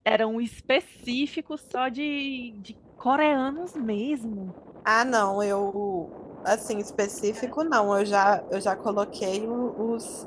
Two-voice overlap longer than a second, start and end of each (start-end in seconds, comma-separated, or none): none